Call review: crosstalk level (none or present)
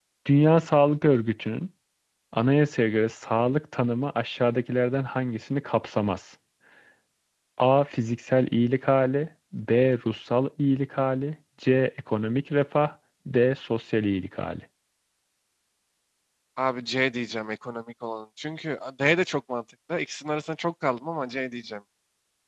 none